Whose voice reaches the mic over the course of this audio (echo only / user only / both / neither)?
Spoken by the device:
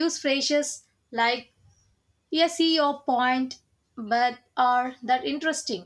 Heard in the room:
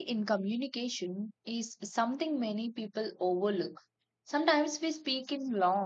user only